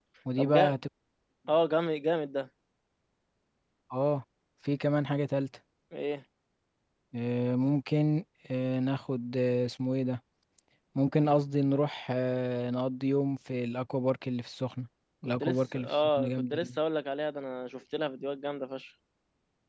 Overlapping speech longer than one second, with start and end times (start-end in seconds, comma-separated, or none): 15.4-16.7